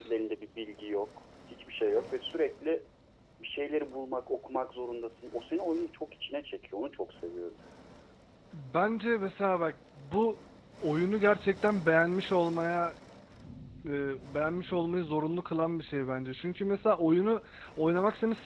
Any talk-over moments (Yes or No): No